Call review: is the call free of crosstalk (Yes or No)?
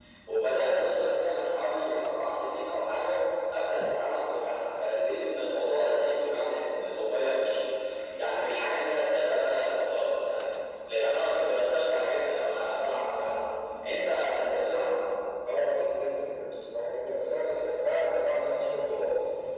Yes